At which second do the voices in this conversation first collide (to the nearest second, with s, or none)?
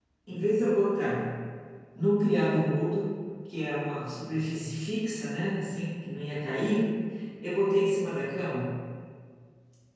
none